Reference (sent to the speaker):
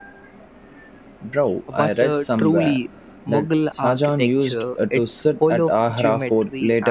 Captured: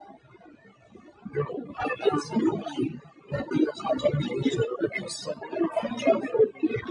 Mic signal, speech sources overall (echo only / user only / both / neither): echo only